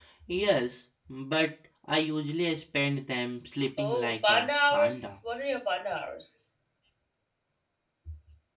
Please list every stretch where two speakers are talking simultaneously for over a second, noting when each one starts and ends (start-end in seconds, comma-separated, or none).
3.8-5.2